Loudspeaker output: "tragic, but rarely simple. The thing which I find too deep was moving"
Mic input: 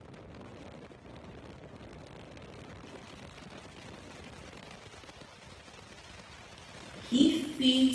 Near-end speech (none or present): present